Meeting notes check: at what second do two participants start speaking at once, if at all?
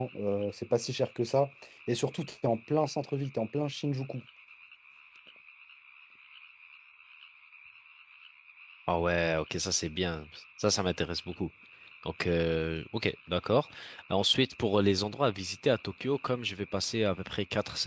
none

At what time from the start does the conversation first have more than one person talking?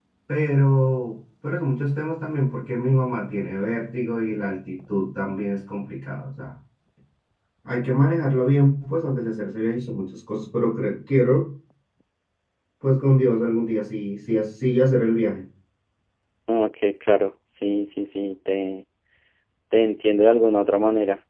none

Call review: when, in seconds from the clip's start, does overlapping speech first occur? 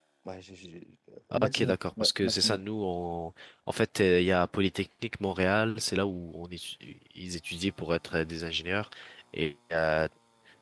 1.3 s

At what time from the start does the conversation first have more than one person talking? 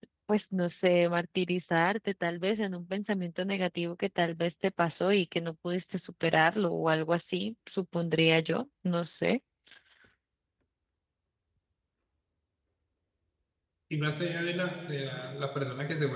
none

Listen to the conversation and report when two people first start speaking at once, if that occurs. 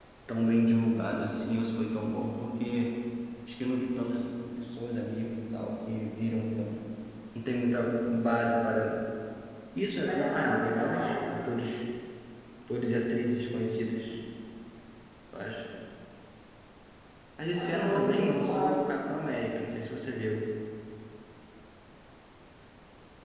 10.0 s

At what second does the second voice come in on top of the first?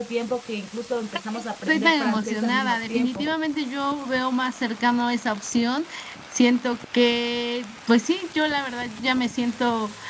1.7 s

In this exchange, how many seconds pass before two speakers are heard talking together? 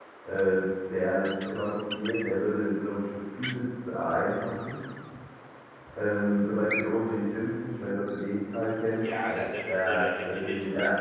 9.0 s

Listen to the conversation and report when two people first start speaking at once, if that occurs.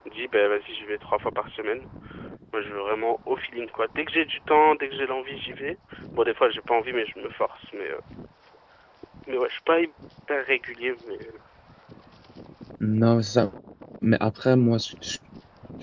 none

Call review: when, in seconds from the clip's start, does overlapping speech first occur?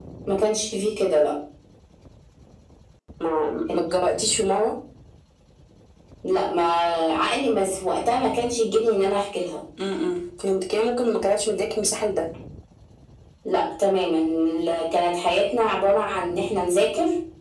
none

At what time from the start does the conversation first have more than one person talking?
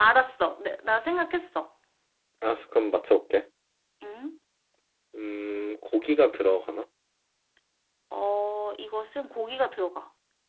none

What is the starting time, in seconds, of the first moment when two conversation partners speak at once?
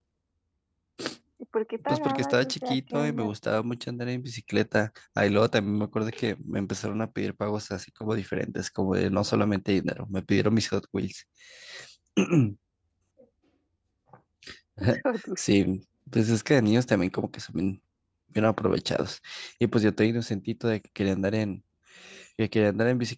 1.9 s

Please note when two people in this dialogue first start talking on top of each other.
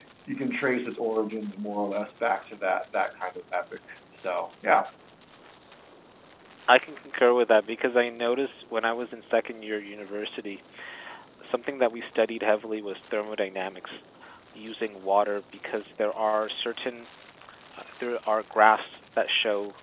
none

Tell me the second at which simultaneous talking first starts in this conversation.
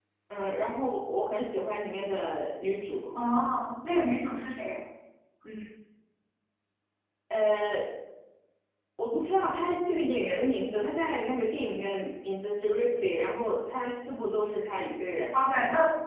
none

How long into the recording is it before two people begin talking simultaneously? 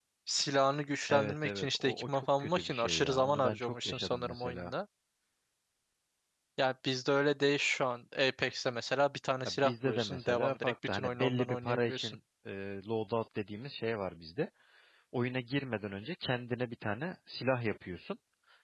1.1 s

